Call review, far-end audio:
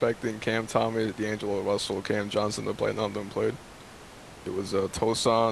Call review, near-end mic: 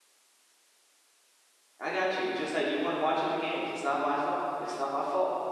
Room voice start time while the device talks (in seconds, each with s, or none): 1.8 s